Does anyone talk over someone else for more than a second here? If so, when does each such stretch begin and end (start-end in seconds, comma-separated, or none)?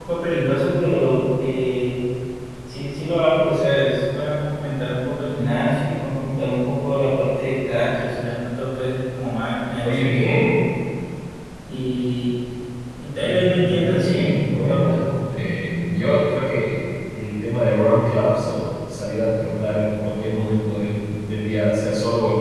13.2-15.0